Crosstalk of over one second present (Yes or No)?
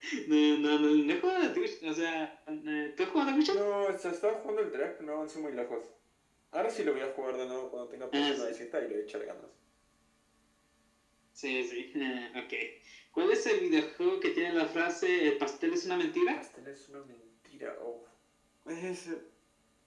No